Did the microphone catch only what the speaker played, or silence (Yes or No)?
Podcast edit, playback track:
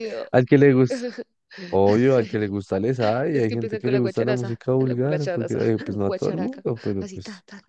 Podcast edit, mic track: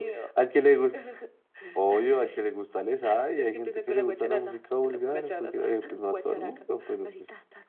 Yes